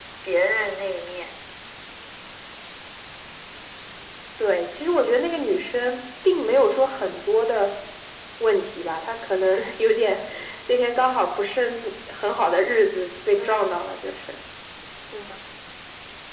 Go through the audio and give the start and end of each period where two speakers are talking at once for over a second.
none

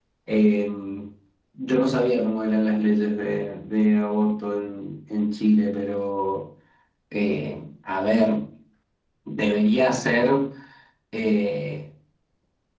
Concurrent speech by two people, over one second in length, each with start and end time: none

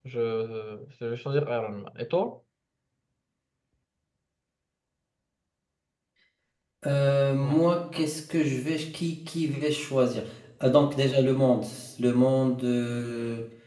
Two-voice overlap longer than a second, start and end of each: none

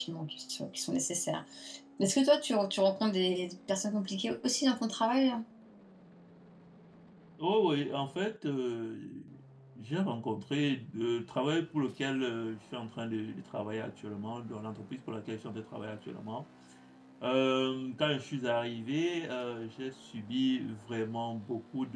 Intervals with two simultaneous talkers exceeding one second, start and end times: none

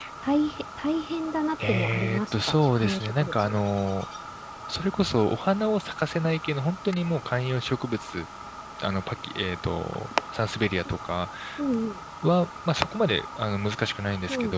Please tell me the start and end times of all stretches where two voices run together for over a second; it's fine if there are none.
1.7-3.5

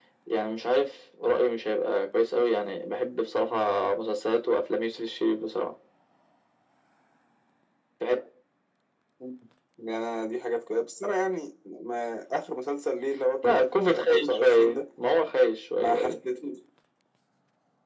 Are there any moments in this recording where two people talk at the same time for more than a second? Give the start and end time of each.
13.4-14.8

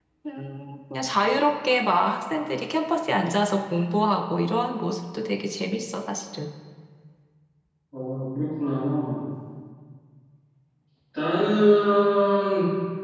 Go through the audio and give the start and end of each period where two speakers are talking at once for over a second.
none

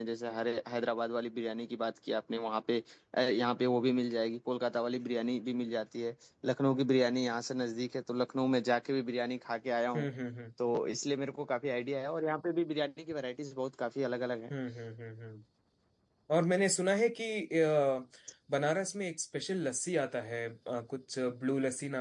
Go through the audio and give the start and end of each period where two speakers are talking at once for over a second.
none

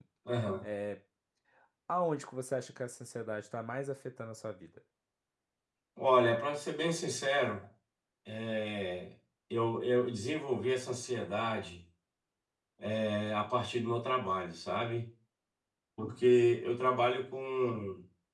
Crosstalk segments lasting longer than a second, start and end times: none

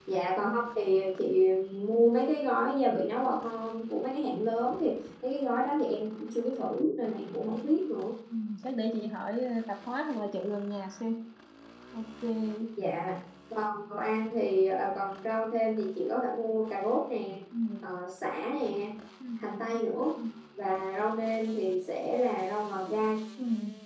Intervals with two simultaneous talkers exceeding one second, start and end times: none

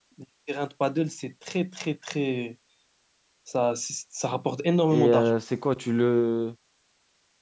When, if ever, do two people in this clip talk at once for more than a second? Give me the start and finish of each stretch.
none

